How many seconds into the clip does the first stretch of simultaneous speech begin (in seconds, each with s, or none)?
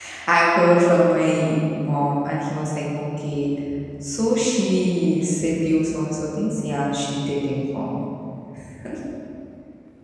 none